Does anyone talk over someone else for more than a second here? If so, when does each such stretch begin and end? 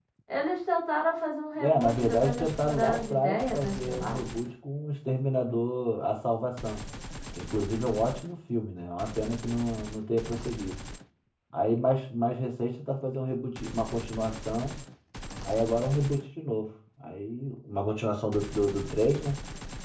1.6-4.2

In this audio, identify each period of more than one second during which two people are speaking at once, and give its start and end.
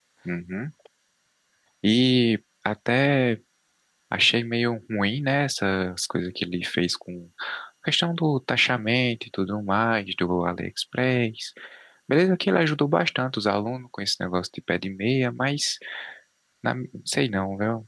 none

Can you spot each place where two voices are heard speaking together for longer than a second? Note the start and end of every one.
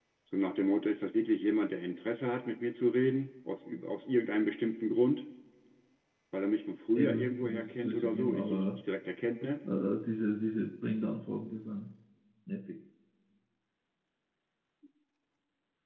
7.0-8.6

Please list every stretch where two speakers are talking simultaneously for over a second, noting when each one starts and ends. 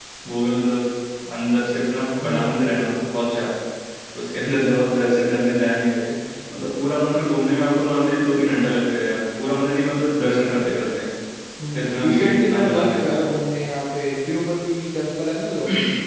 12.0-13.2

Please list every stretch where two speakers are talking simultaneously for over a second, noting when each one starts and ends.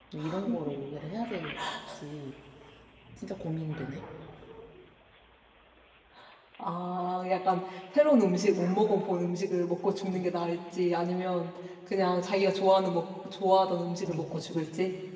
none

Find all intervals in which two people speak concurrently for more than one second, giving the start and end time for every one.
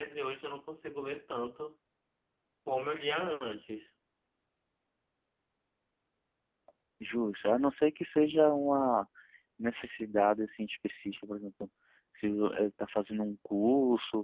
none

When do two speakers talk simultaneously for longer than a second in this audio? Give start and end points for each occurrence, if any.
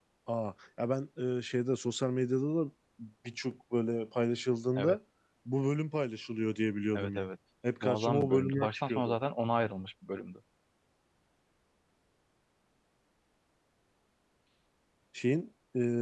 7.8-9.2

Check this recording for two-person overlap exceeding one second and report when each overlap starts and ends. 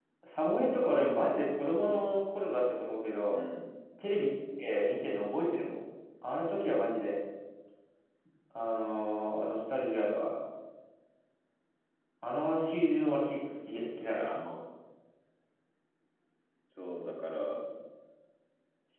none

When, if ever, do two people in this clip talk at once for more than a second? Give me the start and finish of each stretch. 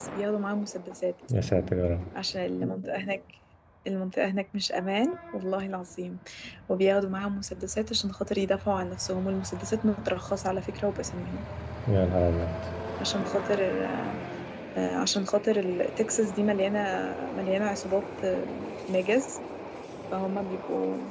none

